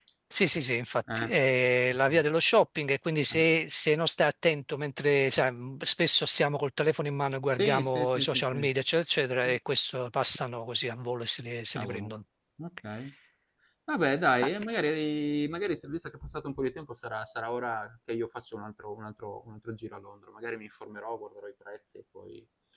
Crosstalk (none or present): present